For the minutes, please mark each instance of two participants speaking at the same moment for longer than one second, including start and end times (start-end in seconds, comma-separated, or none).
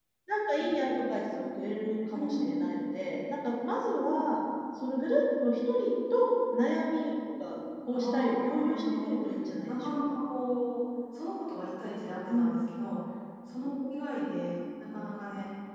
7.9-9.2